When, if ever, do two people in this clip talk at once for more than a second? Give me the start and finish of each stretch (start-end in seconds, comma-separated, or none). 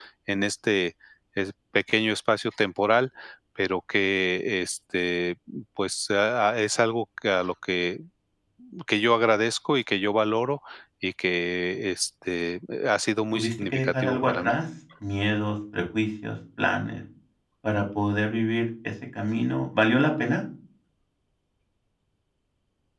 13.3-14.5